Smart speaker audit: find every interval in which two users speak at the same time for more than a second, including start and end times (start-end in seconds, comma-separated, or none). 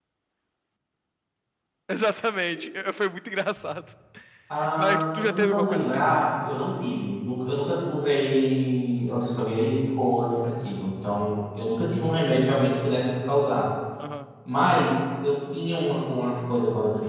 4.8-6.0